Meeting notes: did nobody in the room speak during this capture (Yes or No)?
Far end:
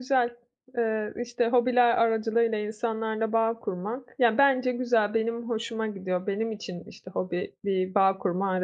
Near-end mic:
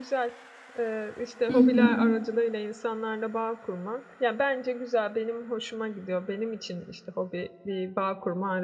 No